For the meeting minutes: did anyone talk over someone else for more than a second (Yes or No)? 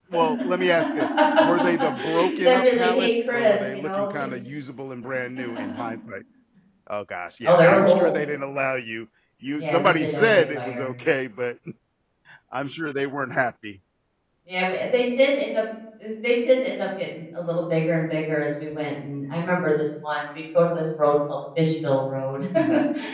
Yes